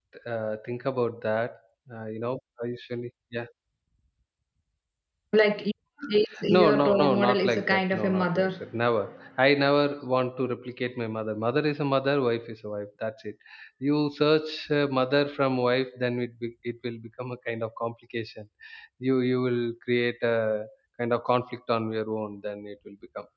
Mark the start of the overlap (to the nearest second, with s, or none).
7 s